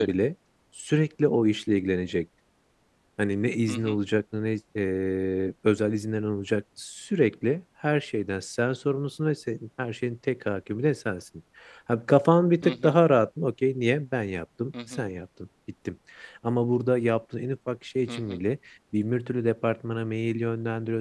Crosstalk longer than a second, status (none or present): none